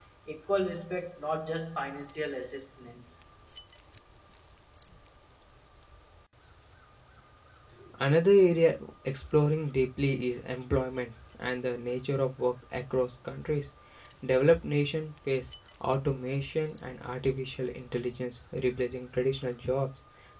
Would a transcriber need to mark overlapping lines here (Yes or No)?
No